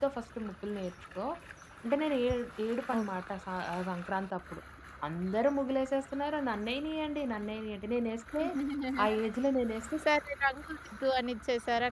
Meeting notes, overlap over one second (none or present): none